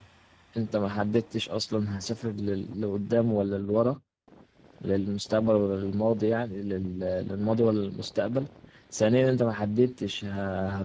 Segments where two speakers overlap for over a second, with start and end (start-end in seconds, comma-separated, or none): none